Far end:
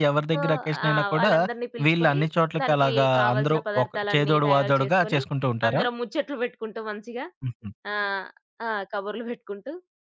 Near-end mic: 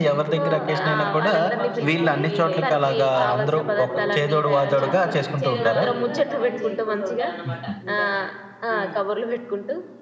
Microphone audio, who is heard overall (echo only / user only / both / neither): both